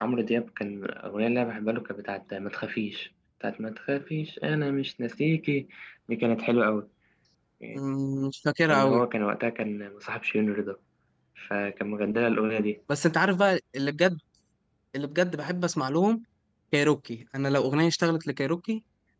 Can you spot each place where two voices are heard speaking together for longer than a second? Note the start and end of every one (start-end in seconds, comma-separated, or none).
none